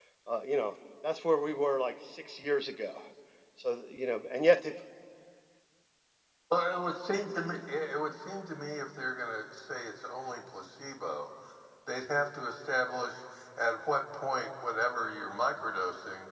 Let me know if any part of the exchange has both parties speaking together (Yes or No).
No